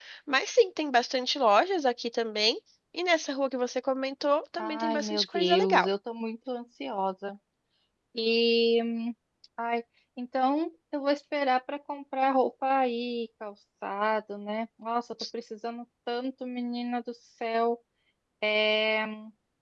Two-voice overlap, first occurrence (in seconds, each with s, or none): 4.6 s